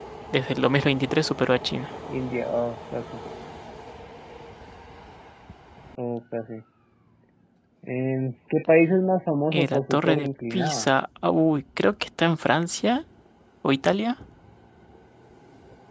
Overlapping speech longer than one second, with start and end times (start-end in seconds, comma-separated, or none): 9.5-10.9